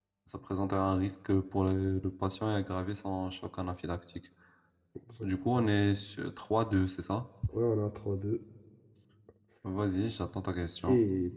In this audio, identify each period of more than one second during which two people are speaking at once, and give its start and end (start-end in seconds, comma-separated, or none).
none